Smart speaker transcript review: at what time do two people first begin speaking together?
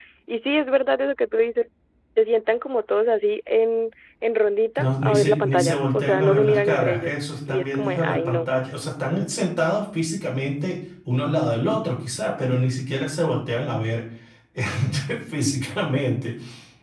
4.8 s

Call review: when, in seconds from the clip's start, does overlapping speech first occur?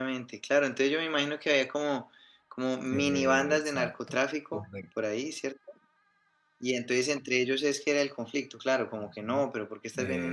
2.9 s

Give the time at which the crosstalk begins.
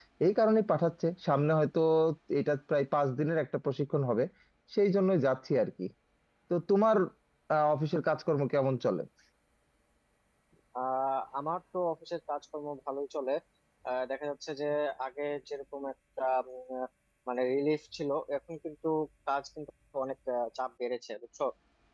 none

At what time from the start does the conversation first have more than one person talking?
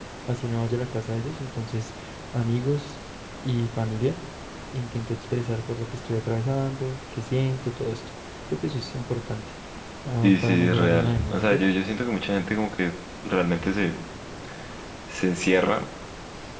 10.2 s

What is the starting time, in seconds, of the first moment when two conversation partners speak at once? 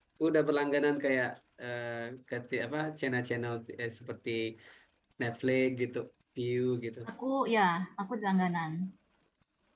none

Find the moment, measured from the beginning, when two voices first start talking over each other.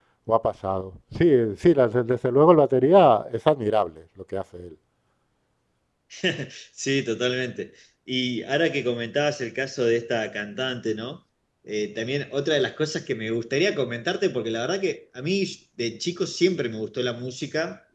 none

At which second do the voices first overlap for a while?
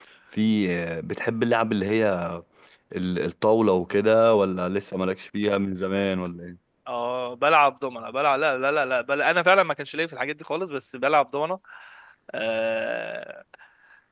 none

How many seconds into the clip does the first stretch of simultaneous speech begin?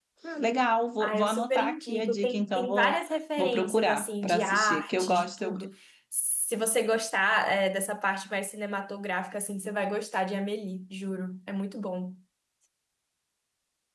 1.0 s

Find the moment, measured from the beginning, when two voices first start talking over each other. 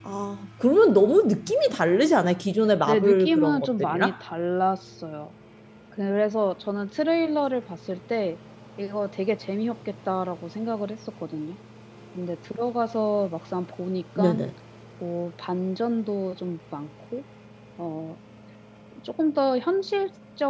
2.9 s

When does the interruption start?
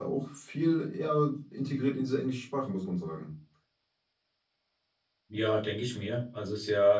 none

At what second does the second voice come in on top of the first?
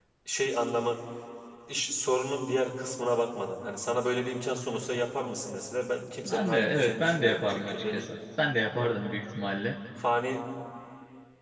6.2 s

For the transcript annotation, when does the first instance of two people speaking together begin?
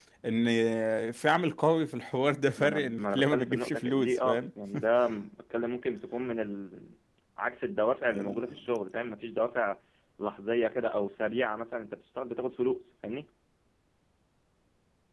2.6 s

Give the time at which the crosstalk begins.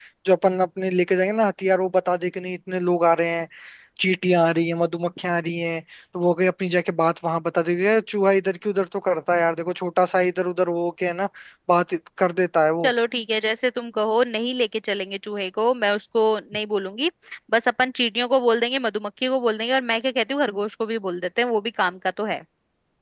none

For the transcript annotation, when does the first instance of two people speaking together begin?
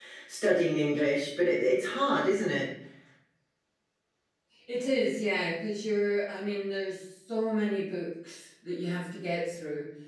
none

